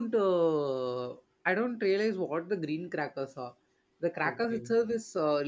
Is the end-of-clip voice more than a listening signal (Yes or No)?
No